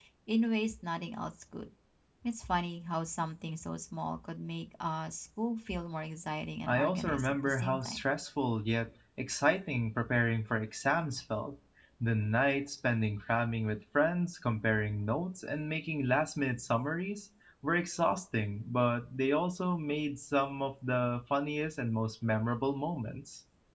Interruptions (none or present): present